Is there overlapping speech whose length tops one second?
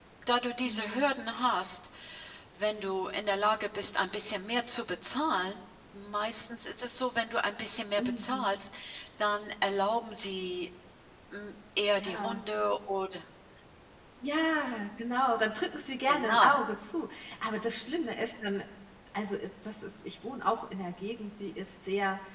No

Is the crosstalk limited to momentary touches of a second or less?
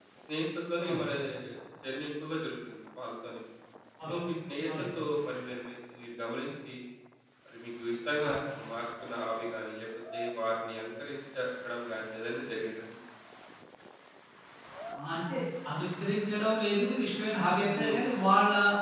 Yes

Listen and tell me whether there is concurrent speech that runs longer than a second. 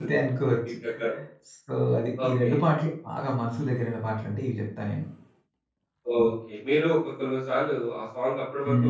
No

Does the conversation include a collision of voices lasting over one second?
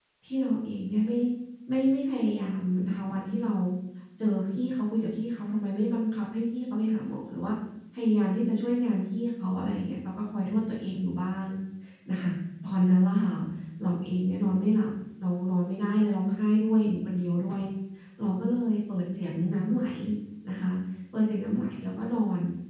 No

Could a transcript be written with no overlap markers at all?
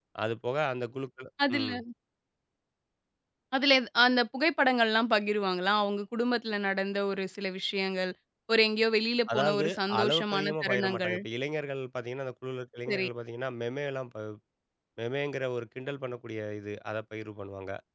No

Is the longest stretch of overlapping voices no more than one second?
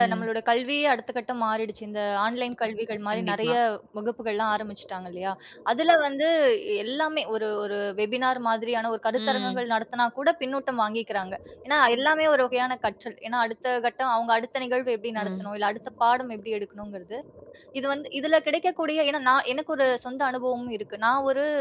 Yes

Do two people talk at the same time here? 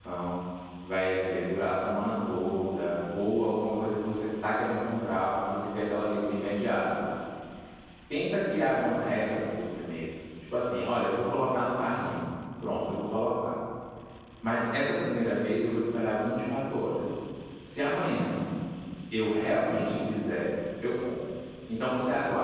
No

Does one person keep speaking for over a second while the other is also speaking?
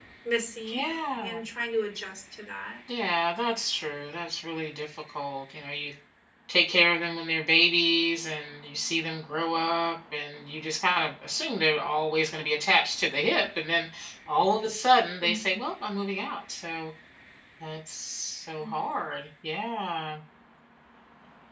No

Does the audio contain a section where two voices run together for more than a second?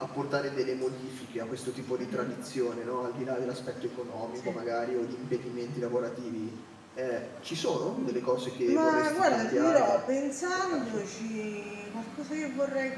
Yes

